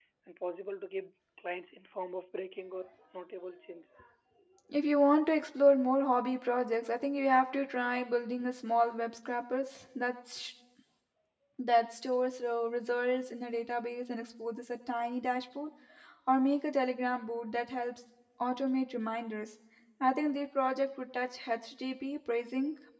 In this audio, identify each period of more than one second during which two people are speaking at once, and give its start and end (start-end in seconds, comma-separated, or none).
none